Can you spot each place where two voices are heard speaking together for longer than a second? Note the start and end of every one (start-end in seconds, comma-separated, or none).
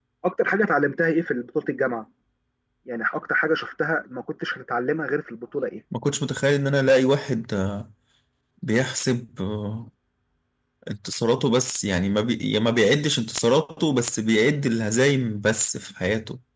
none